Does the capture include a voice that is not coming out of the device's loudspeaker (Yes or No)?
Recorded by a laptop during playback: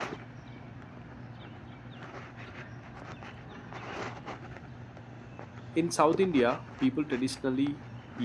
Yes